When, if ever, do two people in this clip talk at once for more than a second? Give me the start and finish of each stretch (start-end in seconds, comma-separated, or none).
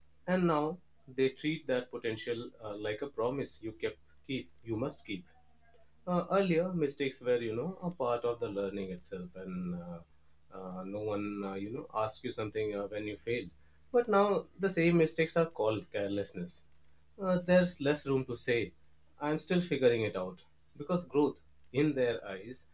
none